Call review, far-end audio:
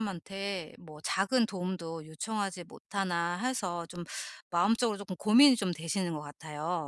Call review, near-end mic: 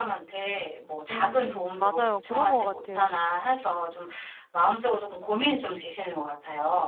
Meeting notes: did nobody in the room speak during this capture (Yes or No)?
No